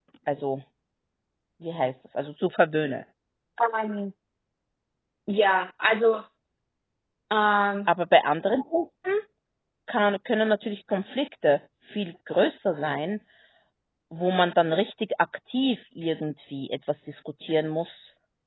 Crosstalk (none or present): none